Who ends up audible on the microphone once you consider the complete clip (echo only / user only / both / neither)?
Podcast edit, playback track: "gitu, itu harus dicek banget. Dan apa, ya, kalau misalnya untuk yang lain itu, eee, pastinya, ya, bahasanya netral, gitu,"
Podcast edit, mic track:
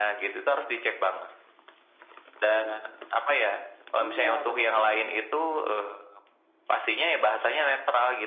both